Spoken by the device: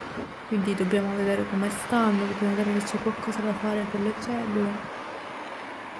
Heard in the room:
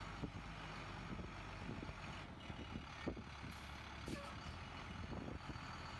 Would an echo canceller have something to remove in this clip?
No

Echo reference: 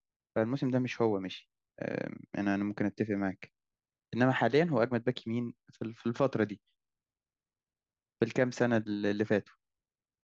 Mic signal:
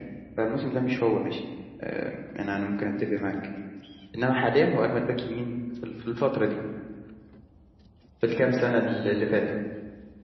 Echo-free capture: No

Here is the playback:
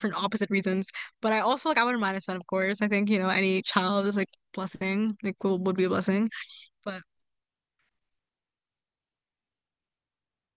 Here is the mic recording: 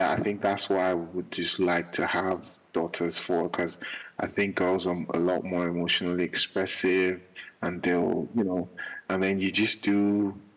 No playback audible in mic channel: Yes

